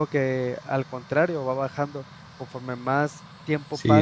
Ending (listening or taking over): taking over